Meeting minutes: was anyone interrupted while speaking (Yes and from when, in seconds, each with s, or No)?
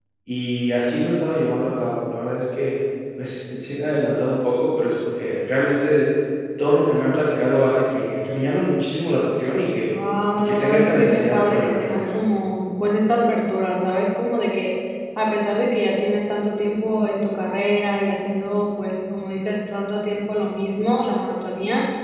Yes, from 10.4 s